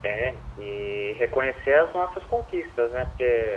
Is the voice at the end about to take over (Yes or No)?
No